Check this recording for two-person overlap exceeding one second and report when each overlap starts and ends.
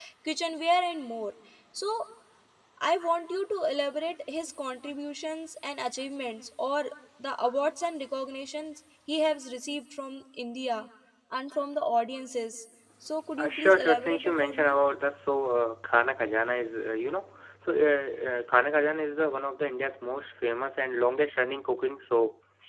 13.4-14.8

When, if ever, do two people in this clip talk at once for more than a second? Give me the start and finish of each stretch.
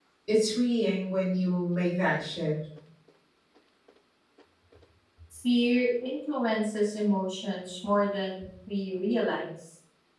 none

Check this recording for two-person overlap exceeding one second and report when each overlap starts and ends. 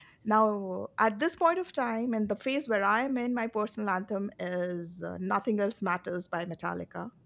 none

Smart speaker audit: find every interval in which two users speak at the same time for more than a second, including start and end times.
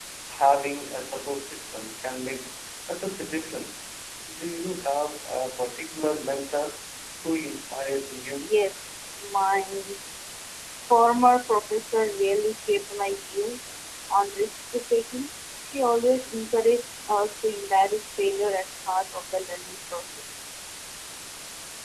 none

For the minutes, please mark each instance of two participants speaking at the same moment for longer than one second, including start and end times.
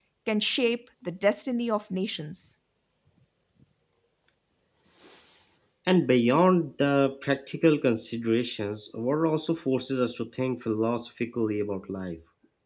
none

